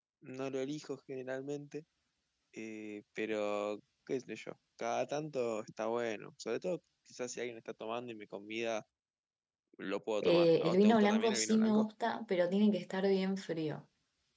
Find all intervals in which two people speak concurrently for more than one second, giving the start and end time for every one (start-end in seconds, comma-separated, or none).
10.2-11.8